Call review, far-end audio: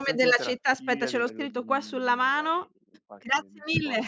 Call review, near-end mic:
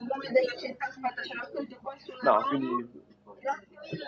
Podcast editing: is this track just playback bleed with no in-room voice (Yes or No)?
No